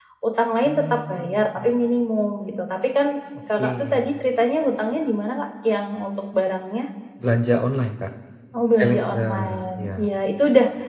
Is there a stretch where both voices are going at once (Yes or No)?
Yes